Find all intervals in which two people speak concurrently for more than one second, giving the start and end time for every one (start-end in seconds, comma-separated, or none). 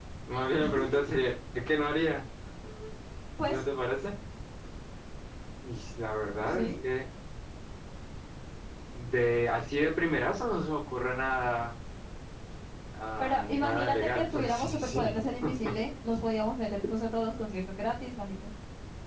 13.2-15.2